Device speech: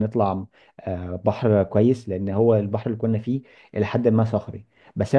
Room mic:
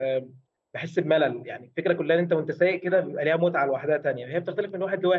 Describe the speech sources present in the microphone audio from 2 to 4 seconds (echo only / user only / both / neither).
user only